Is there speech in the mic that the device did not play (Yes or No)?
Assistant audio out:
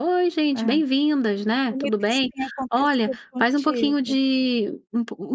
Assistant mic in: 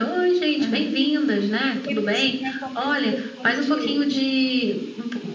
No